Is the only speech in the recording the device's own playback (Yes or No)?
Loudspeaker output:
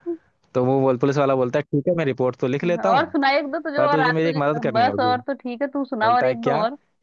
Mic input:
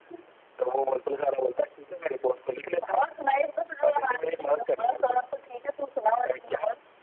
Yes